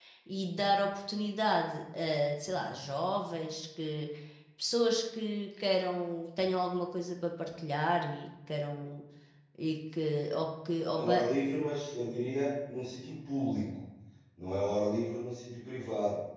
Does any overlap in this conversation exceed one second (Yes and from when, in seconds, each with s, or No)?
No